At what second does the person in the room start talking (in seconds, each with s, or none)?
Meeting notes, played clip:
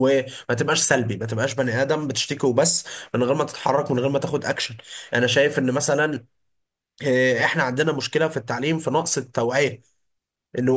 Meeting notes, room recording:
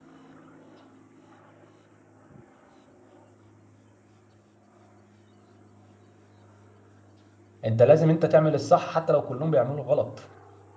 7.6 s